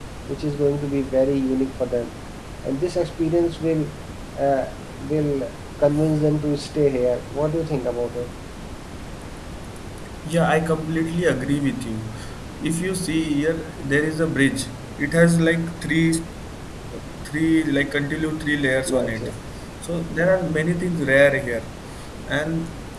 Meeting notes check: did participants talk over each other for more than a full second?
No

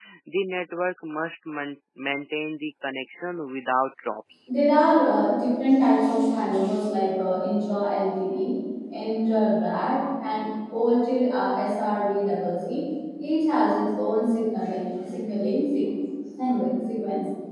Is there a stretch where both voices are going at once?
No

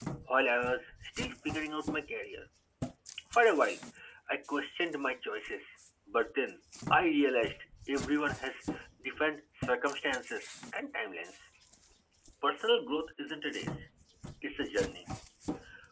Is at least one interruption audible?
No

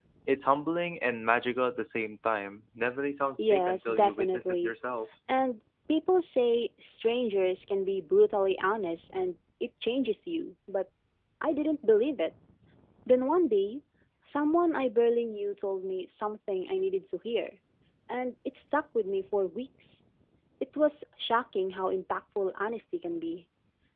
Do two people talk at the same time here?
Yes, from 3.4 s

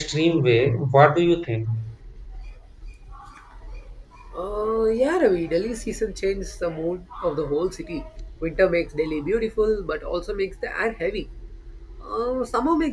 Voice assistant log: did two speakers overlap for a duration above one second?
No

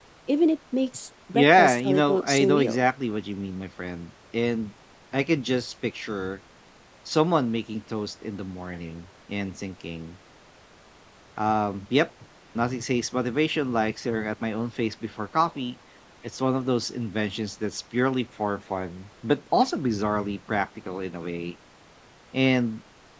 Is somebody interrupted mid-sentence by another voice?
Yes, from 1.3 s

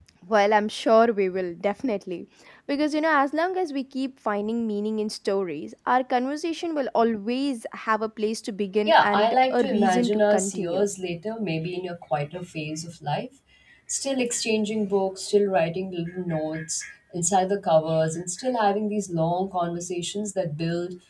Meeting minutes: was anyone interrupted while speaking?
Yes, from 8.8 s

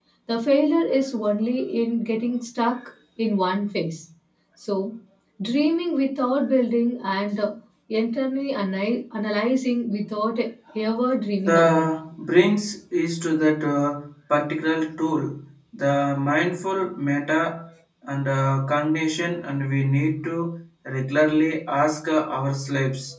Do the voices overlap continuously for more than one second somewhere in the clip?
No

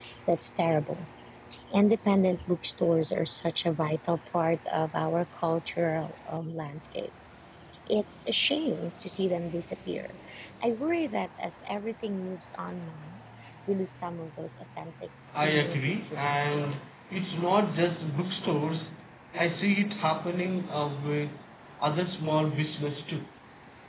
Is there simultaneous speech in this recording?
Yes, from 15.4 s

